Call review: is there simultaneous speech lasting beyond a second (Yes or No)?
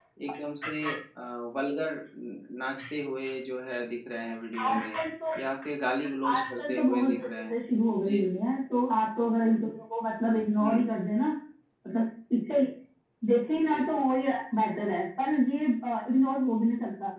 Yes